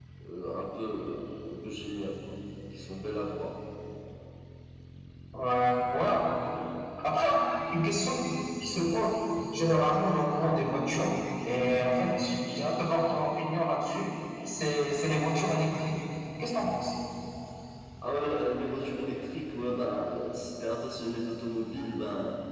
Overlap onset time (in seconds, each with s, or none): none